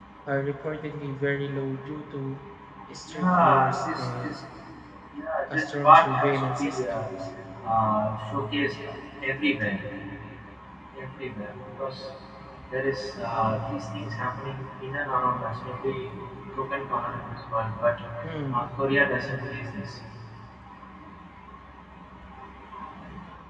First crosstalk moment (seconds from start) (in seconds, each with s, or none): 3.1 s